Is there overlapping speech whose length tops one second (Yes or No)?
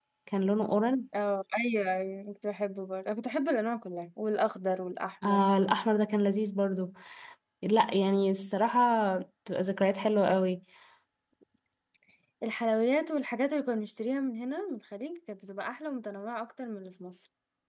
No